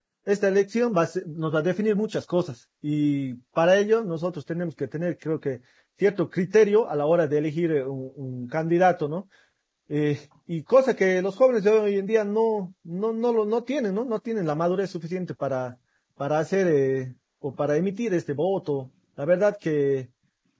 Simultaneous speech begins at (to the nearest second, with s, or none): none